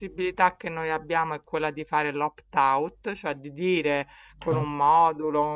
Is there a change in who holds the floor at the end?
No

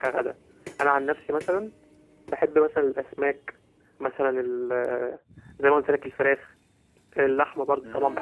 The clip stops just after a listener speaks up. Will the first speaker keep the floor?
Yes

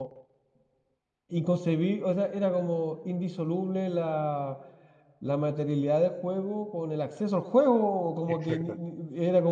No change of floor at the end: Yes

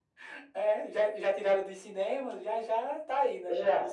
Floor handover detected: Yes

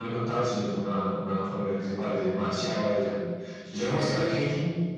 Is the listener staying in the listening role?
Yes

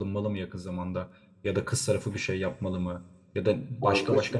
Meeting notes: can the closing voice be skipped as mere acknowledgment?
Yes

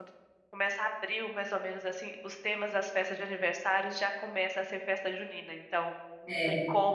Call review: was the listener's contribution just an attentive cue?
Yes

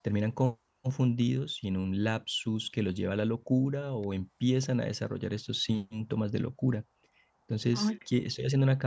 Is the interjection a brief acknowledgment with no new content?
Yes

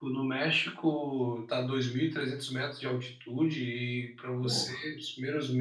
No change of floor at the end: Yes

